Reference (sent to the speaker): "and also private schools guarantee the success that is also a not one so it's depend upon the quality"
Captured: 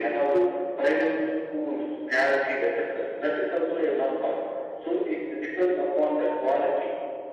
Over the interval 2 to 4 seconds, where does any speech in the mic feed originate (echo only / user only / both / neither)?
echo only